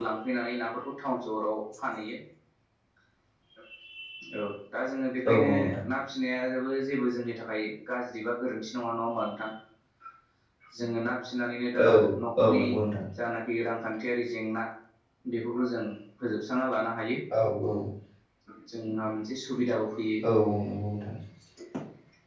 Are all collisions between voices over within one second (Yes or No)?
Yes